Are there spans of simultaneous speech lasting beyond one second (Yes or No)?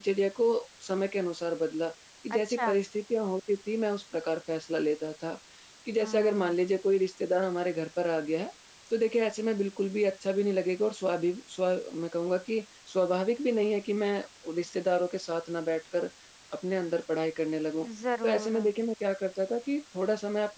No